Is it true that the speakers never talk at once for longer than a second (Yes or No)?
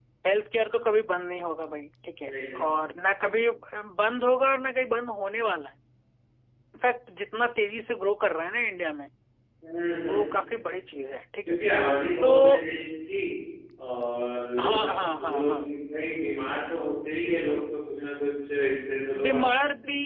Yes